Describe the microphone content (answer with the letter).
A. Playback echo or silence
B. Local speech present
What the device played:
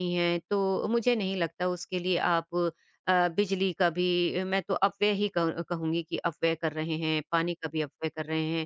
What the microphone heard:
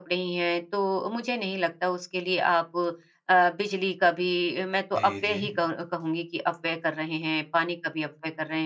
B